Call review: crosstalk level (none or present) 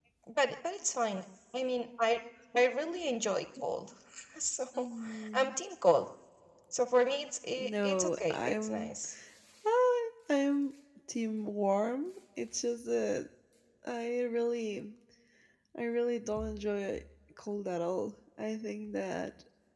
present